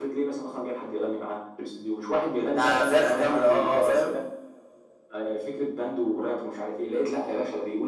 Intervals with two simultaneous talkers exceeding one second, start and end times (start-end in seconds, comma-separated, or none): 2.5-4.1